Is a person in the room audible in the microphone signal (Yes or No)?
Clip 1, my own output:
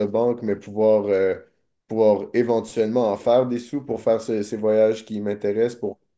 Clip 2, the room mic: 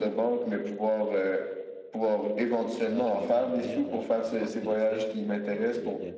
Yes